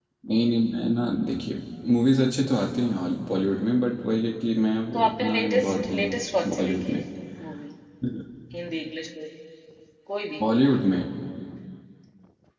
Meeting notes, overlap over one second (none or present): present